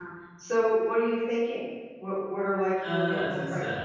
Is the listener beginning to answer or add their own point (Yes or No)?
Yes